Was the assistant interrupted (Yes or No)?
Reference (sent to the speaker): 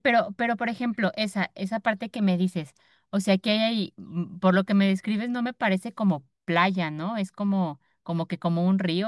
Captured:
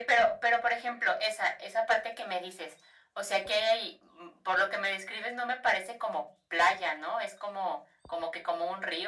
No